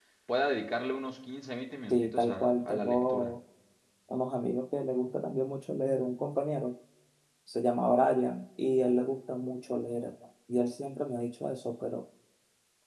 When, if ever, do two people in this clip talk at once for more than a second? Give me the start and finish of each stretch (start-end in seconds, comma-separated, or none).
1.9-3.3